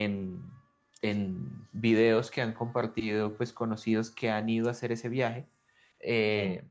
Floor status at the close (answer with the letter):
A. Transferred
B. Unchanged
B